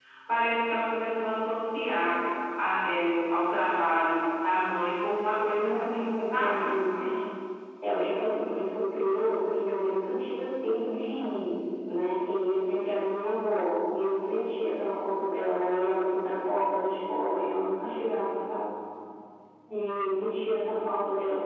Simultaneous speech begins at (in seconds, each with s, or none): 5.6 s